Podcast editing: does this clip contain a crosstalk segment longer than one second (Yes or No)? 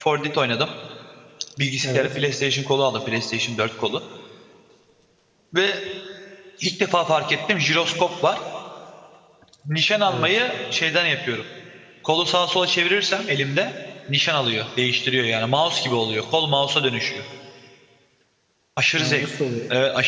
No